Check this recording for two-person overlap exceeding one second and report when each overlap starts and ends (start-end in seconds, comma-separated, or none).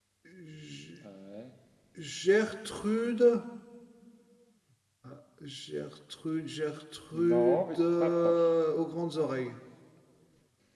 7.1-8.5